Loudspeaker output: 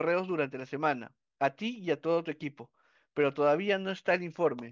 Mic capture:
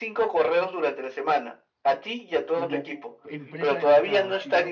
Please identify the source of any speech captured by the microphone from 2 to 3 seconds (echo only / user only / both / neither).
both